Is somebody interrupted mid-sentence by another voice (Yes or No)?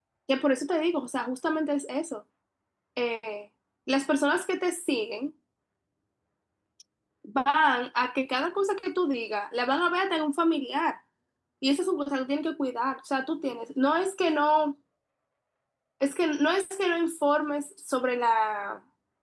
No